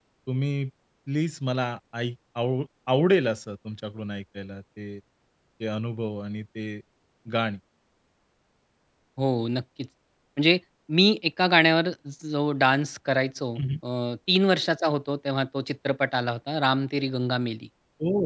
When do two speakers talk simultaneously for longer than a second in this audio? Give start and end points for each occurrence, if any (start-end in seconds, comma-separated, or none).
none